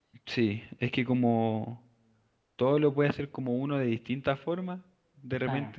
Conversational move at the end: listening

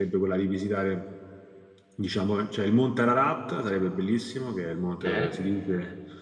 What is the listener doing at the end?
listening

